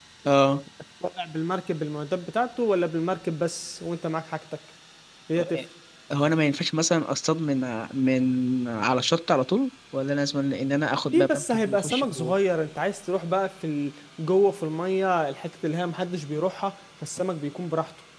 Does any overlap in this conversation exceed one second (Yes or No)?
Yes